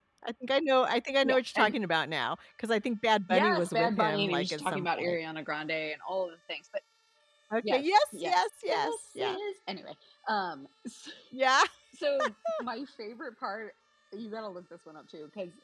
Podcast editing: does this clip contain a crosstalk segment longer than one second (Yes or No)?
Yes